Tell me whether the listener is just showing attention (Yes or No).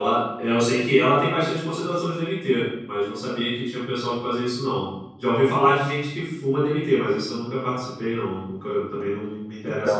No